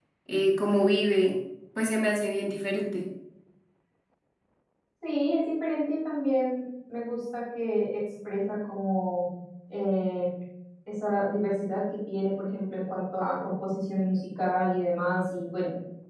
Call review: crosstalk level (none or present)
none